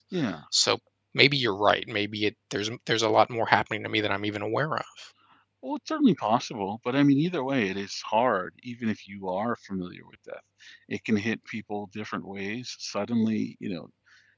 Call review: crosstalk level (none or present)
none